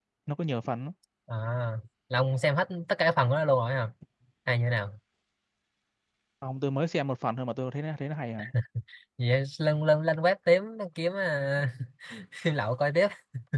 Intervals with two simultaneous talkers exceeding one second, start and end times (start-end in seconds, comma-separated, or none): none